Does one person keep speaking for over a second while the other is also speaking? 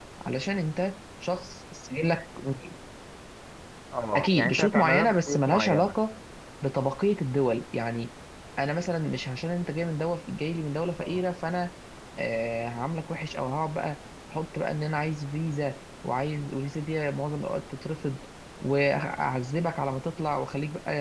Yes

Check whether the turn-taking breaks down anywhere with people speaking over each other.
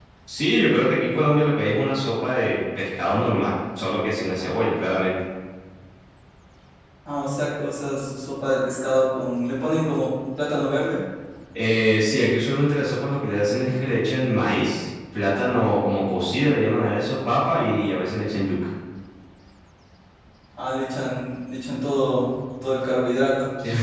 No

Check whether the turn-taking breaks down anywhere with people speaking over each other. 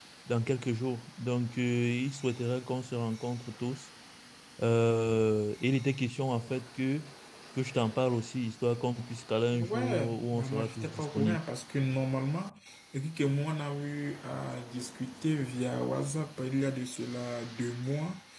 Yes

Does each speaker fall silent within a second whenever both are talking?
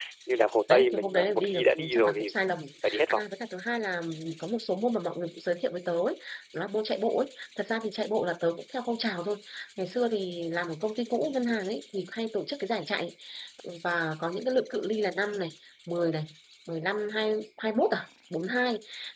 No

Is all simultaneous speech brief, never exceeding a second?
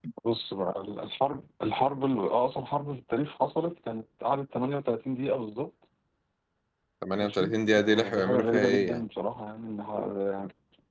No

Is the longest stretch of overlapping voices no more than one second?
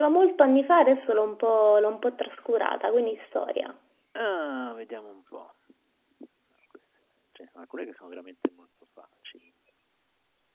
Yes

